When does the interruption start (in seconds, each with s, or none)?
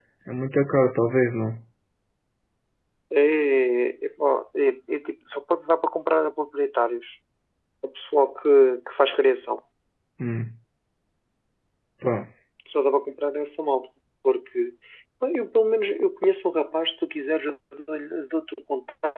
none